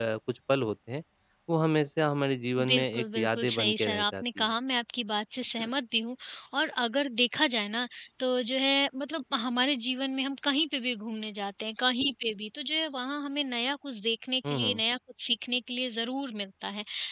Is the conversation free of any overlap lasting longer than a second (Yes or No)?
No